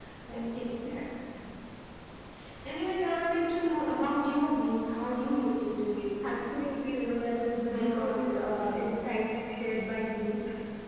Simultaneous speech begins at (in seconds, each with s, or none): 7.6 s